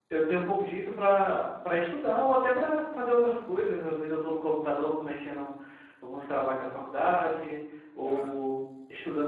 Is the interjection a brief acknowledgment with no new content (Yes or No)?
Yes